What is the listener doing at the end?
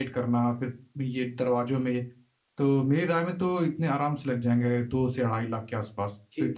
taking over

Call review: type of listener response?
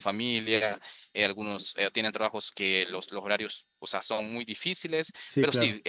listening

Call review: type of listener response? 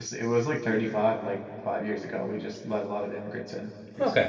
taking over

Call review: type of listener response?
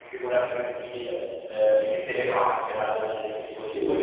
listening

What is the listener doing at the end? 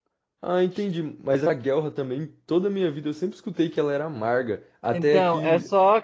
taking over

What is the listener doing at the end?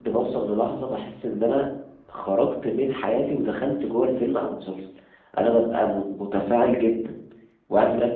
listening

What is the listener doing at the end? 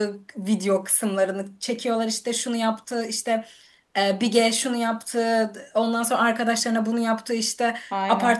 listening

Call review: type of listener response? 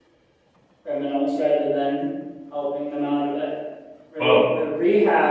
listening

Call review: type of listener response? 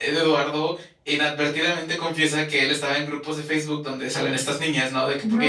listening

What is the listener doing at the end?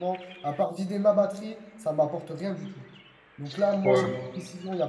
listening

